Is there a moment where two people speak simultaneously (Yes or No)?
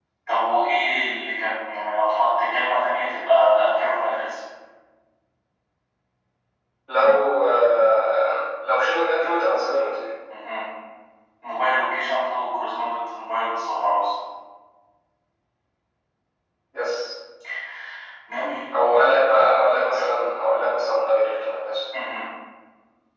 No